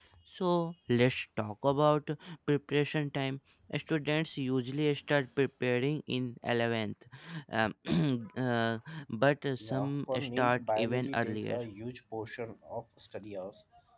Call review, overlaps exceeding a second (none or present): present